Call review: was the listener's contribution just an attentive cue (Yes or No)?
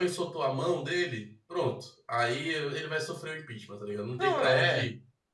No